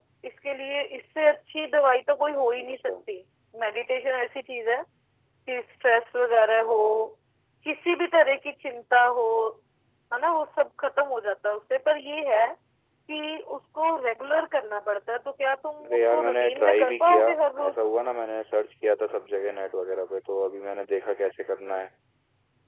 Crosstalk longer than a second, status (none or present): present